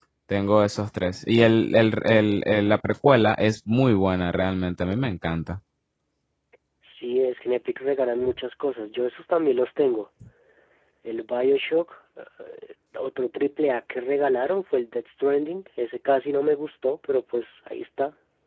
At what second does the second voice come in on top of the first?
none

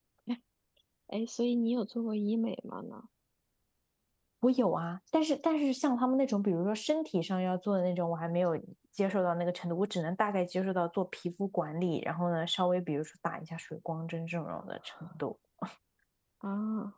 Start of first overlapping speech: none

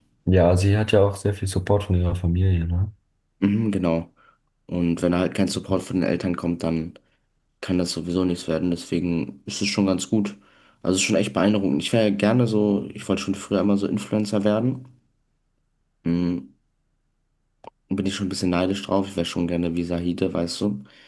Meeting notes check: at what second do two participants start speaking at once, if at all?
none

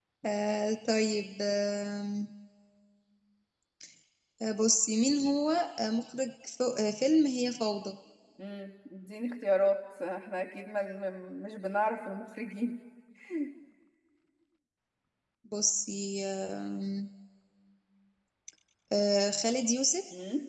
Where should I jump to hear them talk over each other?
none

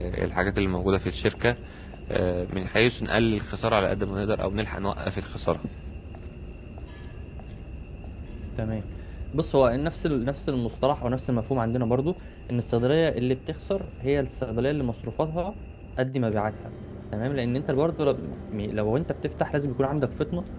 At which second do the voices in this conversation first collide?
none

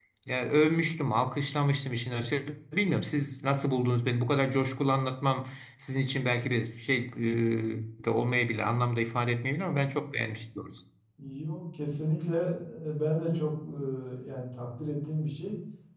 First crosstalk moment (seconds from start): none

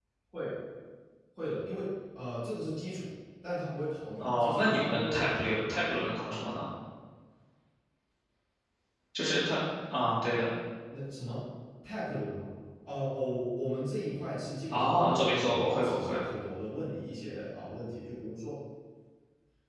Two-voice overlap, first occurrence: 4.2 s

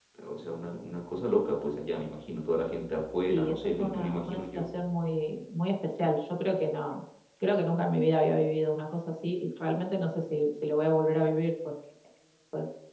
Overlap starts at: 3.3 s

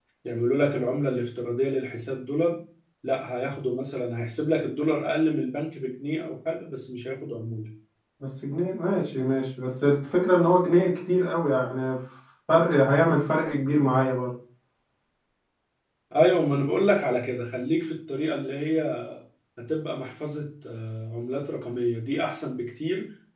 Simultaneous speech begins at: none

